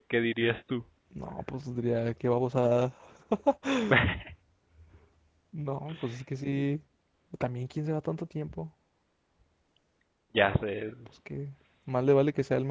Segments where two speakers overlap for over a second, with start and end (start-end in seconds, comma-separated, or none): none